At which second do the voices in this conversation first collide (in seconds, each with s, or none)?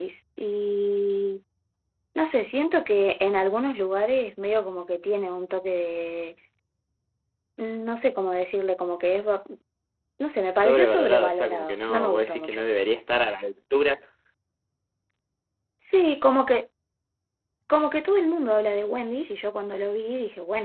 10.6 s